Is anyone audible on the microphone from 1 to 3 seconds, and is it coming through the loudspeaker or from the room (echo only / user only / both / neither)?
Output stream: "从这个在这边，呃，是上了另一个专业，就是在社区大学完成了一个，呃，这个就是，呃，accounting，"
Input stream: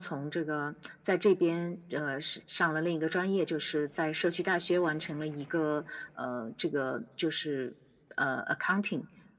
echo only